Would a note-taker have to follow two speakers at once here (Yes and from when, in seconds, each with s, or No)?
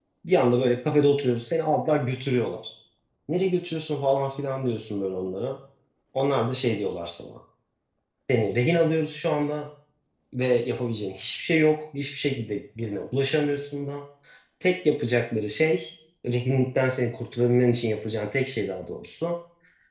No